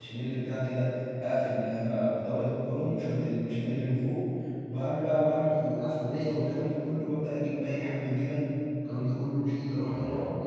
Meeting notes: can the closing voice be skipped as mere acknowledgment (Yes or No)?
Yes